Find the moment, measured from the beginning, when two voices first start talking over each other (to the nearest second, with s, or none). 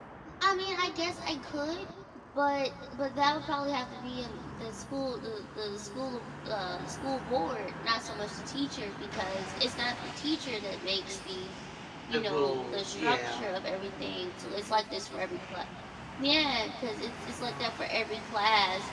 12 s